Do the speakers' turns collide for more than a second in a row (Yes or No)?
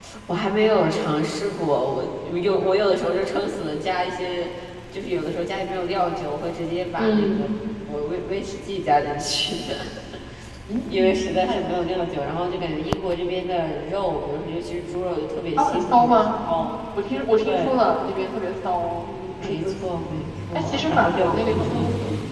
Yes